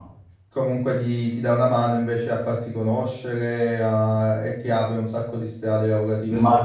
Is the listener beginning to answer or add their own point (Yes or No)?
Yes